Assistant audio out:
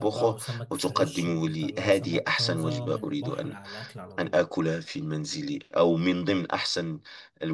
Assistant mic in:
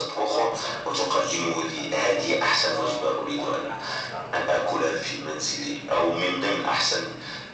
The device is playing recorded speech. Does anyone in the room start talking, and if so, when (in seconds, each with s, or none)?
none